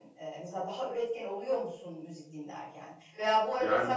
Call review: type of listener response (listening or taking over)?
listening